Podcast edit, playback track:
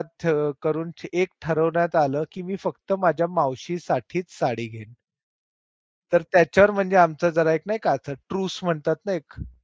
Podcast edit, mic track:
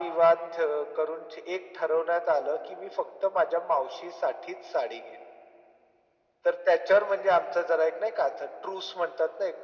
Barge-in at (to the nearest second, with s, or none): none